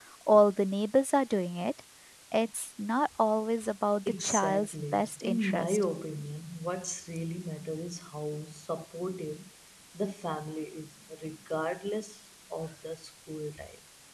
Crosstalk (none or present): present